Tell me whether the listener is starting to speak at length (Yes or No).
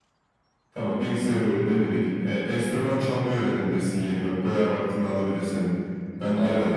No